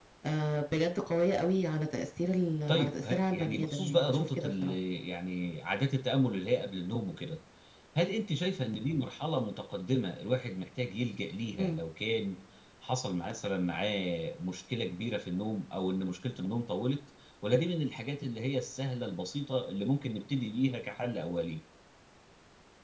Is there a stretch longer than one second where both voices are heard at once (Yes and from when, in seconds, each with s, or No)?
Yes, from 2.7 s